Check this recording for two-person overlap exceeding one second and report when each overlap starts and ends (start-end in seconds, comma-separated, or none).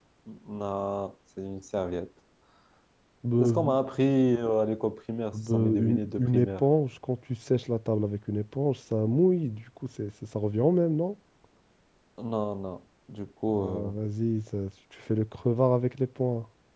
5.3-6.6